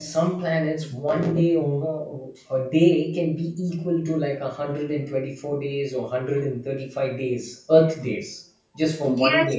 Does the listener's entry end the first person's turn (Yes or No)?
Yes